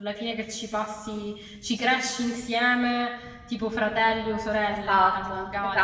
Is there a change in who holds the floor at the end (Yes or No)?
Yes